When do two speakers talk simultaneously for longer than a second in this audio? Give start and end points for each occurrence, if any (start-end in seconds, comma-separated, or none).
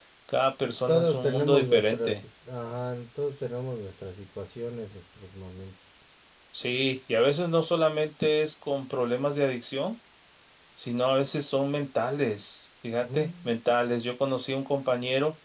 0.9-2.2